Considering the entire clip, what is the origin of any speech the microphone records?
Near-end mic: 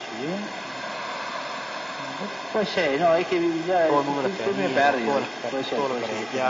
both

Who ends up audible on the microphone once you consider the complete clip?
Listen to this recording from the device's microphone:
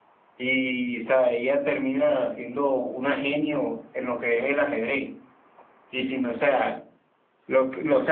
user only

